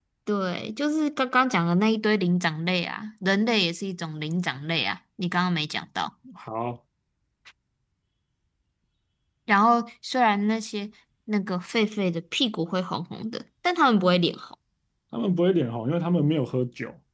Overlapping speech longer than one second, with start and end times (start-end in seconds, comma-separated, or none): none